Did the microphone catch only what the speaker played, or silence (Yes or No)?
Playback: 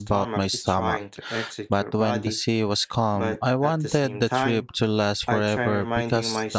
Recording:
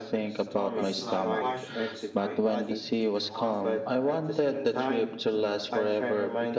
No